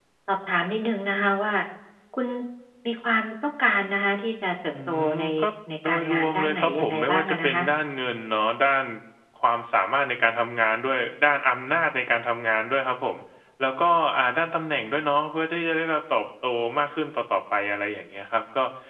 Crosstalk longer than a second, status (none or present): present